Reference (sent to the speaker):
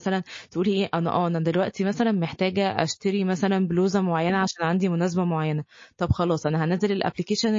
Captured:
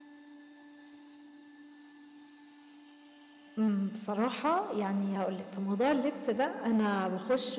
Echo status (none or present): none